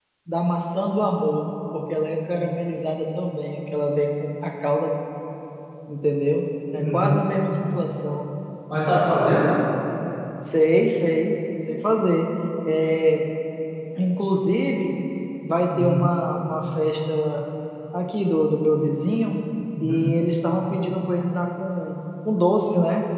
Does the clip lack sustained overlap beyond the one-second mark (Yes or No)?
Yes